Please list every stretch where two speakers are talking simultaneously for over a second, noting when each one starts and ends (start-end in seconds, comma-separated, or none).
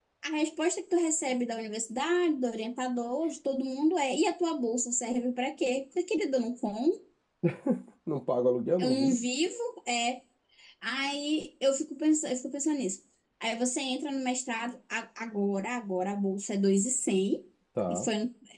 none